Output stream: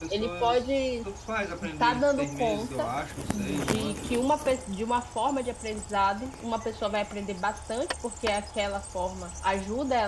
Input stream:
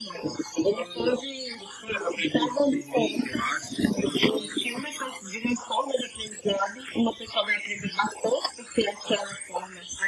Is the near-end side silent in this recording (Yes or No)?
Yes